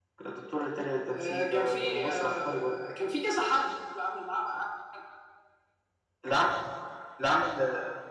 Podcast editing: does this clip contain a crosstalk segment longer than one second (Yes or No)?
Yes